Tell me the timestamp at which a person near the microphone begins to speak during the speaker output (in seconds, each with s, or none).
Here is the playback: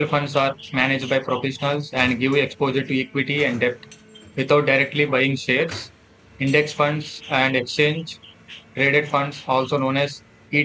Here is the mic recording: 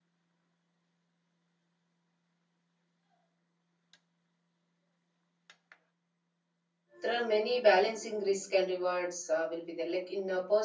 7.0 s